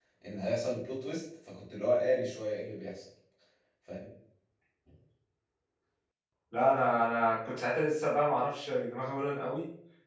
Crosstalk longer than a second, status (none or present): none